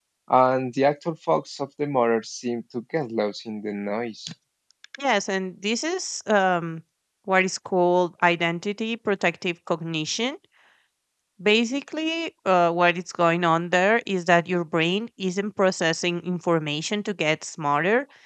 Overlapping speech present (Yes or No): No